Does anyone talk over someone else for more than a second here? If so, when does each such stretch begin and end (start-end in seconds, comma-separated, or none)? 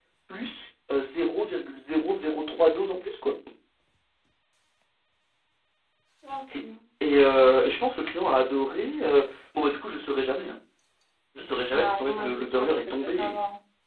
11.7-13.3